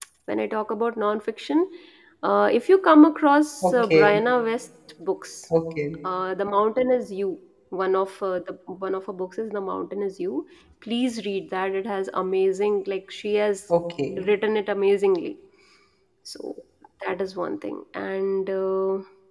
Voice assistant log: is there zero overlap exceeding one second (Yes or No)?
Yes